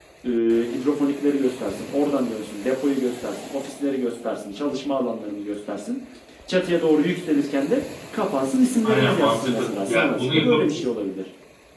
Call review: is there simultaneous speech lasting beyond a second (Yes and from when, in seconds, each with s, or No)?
Yes, from 8.8 s